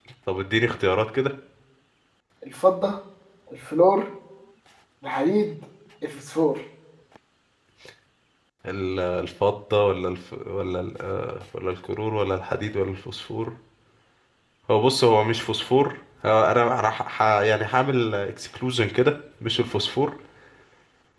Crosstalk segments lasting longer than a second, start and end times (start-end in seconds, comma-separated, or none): none